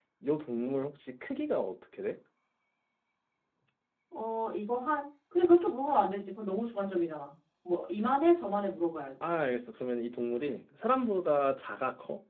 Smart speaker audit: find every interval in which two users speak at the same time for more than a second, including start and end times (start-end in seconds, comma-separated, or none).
none